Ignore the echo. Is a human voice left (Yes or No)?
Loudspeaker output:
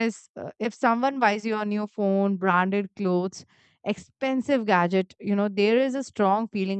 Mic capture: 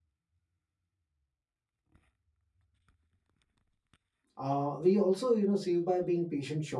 Yes